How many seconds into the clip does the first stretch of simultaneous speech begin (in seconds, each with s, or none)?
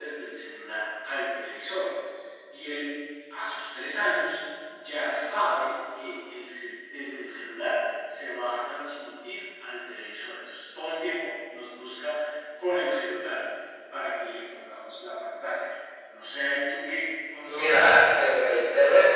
17.4 s